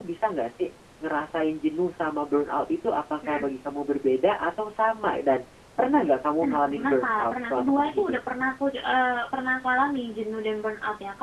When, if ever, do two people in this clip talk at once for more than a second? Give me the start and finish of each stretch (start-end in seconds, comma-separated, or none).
6.4-8.2